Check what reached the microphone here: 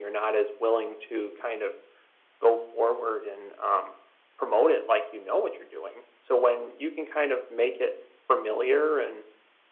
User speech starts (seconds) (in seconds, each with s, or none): none